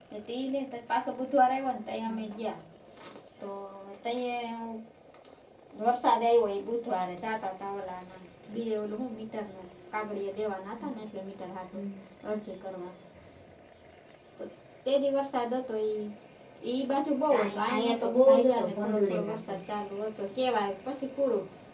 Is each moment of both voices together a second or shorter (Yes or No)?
No